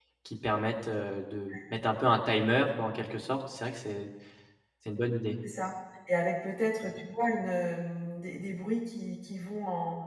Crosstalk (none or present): none